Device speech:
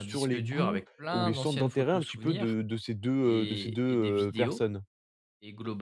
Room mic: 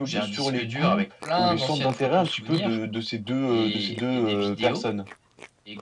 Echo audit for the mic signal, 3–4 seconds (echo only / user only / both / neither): echo only